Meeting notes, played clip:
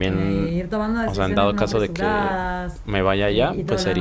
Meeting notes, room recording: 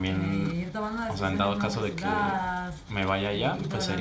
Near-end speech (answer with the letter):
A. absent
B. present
A